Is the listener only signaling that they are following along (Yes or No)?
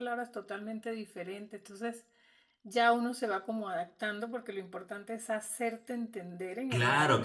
No